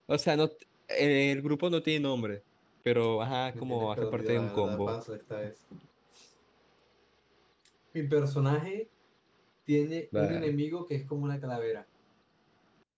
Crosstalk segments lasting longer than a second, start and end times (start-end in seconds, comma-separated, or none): 3.6-4.9